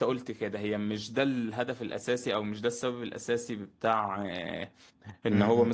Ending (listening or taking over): listening